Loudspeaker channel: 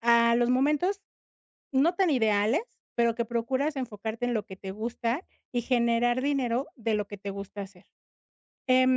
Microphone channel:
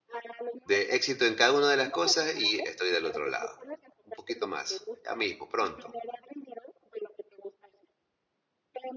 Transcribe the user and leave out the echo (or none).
de éxito en cada una de las cosas y estoy del otro lado. Un poquito más, ya mismo, pronto.